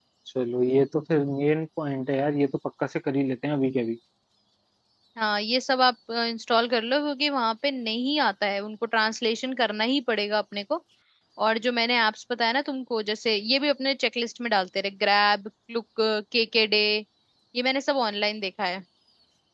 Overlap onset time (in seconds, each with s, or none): none